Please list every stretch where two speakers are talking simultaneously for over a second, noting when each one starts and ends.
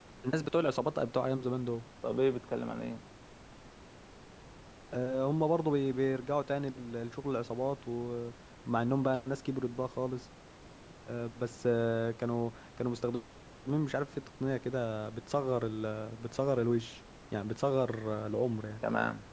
none

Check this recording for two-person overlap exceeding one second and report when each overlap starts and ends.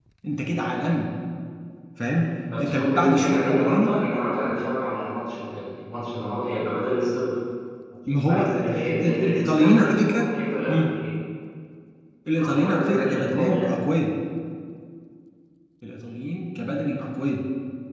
2.6-3.9, 8.3-10.2, 12.3-13.7

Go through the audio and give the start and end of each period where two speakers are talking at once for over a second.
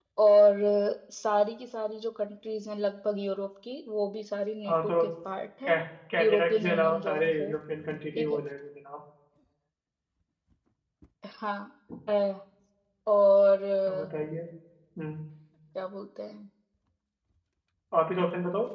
6.2-7.5

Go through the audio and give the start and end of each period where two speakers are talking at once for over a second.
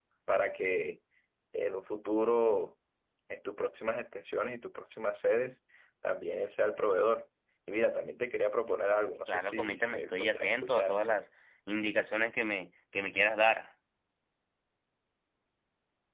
9.3-11.0

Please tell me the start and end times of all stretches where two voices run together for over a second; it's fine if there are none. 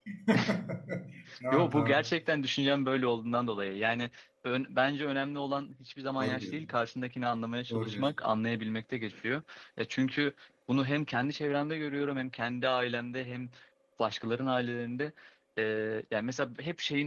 none

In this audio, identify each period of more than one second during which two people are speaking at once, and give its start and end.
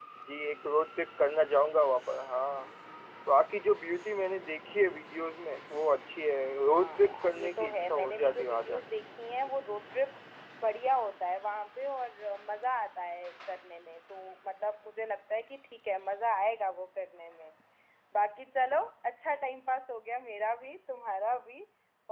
6.7-8.8

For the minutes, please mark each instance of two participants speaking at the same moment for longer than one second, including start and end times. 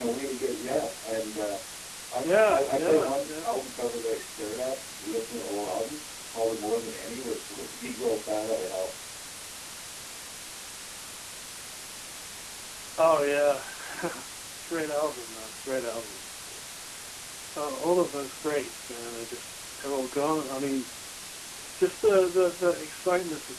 2.2-3.5

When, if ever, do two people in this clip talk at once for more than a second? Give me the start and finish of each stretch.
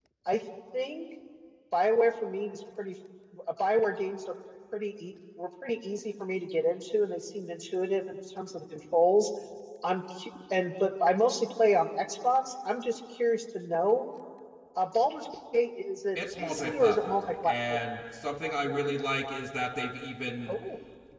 16.2-17.8

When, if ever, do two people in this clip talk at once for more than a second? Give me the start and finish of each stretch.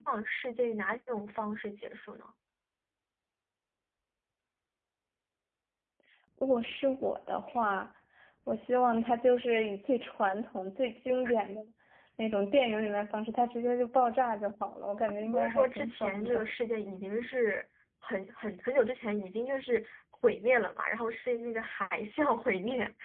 15.2-16.5

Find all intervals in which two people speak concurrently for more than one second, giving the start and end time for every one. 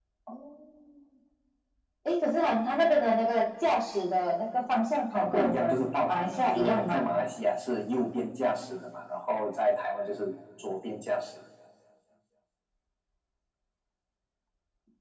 5.1-7.0

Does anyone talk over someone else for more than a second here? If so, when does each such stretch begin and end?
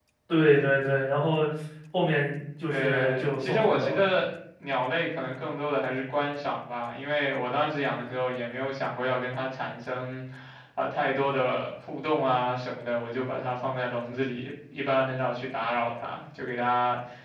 2.7-4.0

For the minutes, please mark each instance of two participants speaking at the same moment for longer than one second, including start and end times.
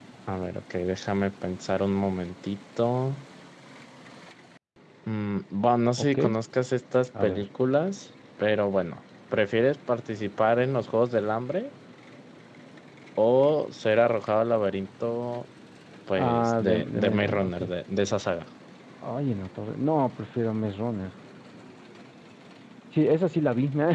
16.2-17.6

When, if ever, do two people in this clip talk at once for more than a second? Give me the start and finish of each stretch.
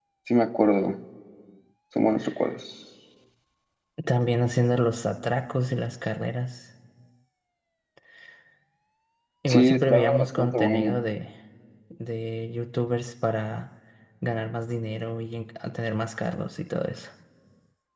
9.5-11.0

